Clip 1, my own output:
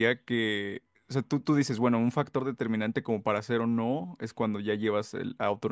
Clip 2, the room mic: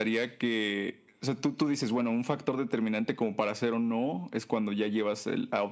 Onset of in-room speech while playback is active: none

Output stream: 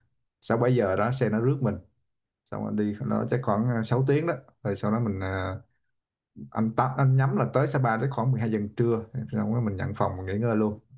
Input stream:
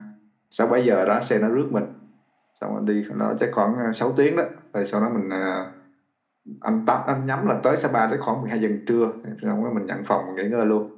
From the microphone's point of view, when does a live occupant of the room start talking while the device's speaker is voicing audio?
none

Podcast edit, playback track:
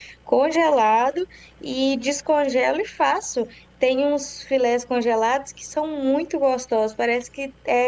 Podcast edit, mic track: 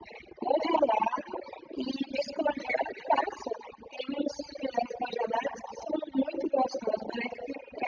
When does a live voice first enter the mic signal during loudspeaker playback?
none

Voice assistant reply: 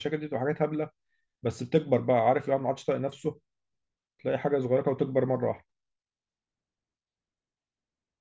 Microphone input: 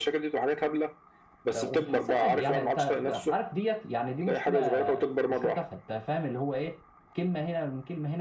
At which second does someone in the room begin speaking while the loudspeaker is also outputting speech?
1.5 s

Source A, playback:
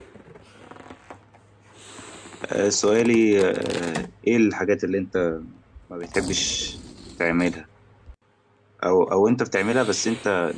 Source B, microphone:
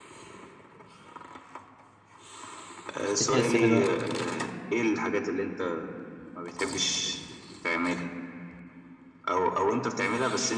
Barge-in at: 3.0 s

